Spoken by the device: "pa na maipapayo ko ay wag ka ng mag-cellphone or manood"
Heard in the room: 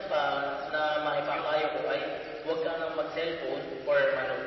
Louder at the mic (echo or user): echo